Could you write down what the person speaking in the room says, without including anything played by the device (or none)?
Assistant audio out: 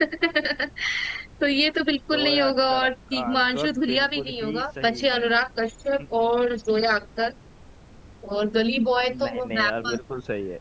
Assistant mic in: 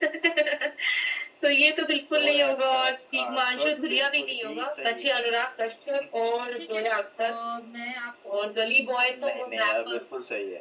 ठीक है और मैं आप